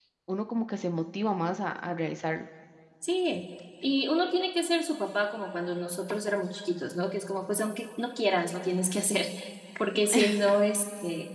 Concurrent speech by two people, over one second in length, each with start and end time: none

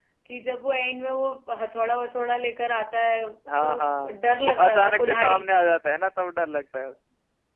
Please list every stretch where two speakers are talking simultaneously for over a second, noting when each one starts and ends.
4.1-5.4

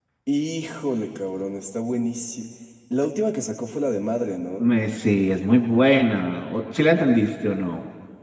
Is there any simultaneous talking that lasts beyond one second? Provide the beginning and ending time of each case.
none

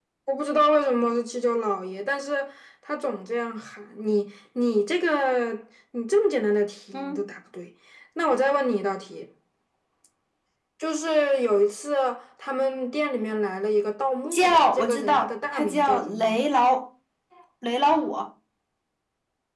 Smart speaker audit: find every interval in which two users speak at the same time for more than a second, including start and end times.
14.3-16.4

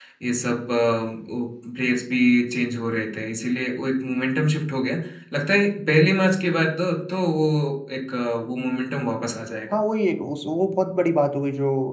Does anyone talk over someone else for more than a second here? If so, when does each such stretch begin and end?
none

